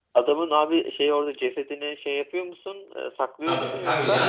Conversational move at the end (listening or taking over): taking over